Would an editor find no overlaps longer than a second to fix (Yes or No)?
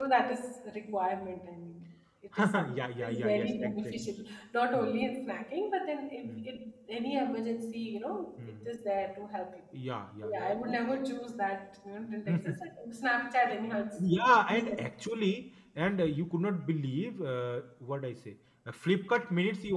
No